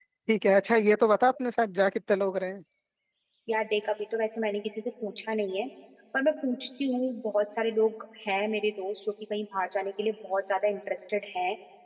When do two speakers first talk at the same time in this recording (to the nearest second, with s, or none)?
none